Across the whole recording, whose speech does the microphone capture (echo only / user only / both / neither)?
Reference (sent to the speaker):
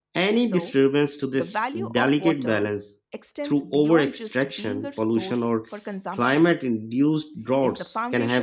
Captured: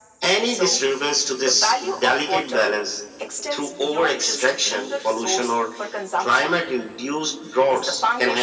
echo only